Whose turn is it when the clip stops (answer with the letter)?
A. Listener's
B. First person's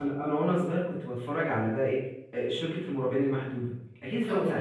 A